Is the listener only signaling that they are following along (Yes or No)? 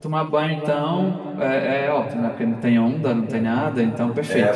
No